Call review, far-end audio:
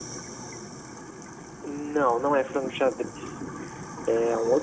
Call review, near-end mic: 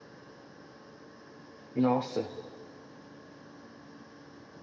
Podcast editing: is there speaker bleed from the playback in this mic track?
No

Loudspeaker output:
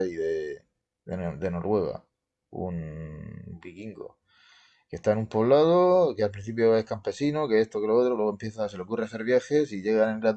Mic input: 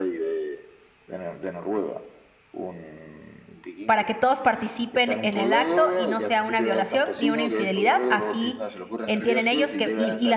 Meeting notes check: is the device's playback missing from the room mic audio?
No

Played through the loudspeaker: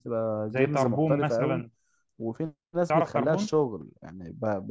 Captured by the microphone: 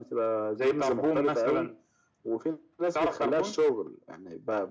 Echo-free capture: No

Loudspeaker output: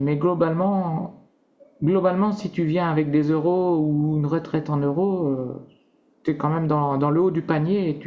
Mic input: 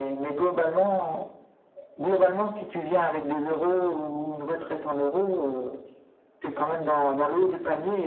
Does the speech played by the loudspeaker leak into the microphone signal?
Yes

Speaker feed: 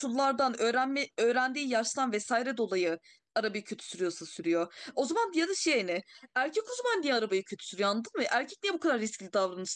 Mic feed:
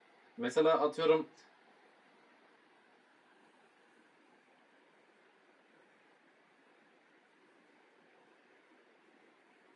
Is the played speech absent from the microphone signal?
Yes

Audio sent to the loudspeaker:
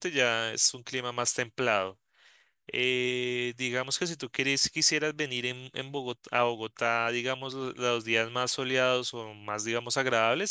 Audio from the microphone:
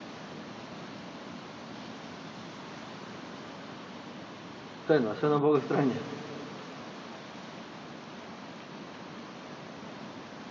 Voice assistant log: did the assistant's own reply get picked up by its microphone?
No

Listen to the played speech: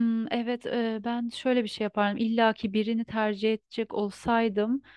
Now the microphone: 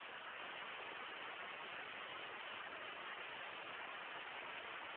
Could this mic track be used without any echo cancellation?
Yes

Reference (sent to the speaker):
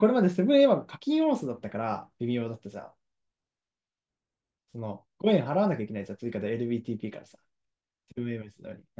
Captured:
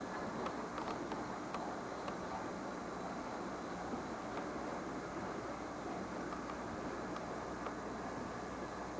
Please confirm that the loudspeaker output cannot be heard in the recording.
Yes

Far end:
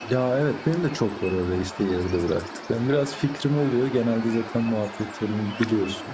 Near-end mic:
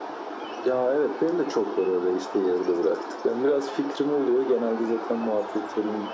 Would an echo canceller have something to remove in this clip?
Yes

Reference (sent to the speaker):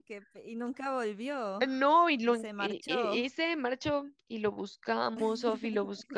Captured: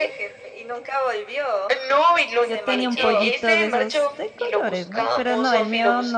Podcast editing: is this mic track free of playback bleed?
No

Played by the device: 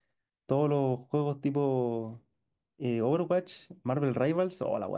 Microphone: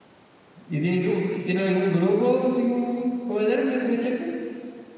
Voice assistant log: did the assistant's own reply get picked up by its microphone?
No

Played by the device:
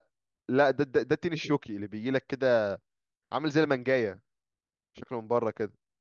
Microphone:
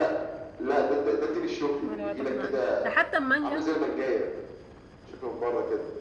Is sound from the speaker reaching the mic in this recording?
Yes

